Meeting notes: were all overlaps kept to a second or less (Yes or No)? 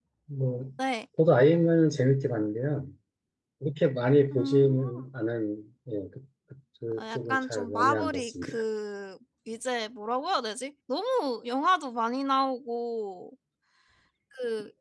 No